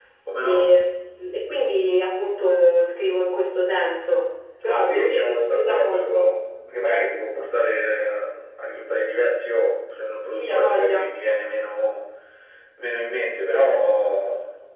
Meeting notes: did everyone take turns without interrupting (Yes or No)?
No